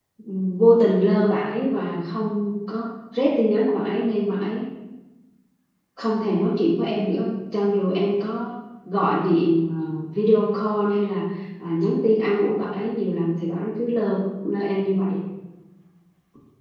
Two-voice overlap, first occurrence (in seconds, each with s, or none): none